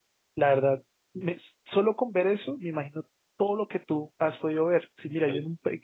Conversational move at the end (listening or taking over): listening